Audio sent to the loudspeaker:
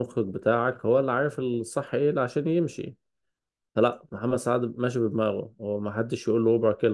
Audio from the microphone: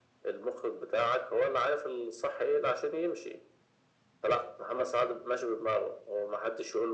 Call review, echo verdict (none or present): present